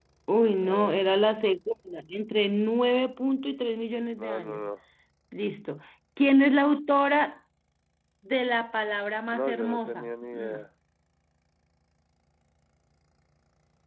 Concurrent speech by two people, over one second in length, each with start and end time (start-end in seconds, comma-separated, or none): 9.3-10.6